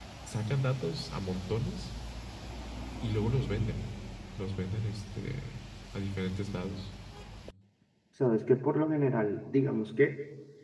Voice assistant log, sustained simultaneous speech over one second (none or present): none